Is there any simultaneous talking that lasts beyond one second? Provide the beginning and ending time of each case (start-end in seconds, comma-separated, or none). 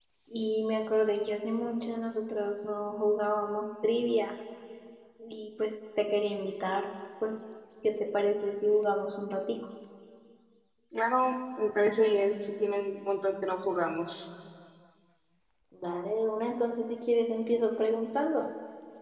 none